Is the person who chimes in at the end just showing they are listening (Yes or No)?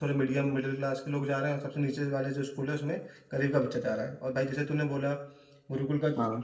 Yes